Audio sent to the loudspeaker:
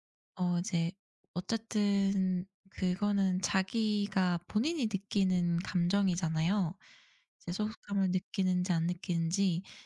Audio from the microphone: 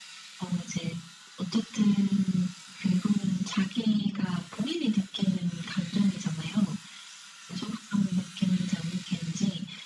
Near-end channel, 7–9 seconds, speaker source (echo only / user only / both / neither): echo only